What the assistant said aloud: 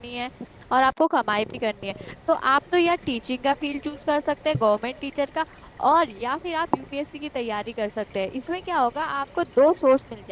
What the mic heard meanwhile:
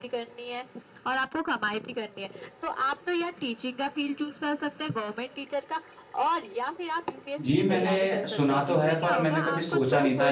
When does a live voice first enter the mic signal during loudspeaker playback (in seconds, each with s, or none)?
7.4 s